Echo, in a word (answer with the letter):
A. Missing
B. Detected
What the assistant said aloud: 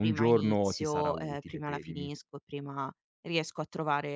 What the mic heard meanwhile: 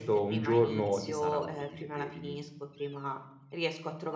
B